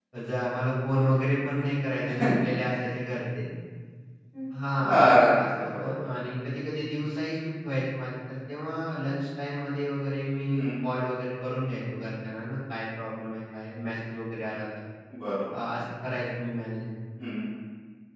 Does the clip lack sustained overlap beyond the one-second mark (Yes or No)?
No